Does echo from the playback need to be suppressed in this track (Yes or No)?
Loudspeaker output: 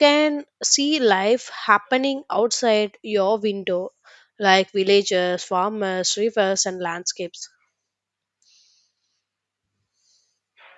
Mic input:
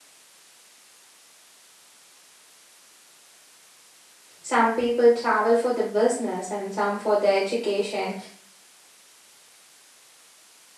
No